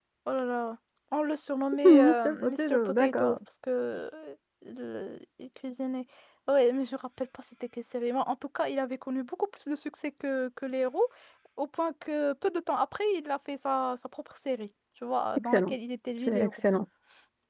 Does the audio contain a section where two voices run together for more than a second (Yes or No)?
Yes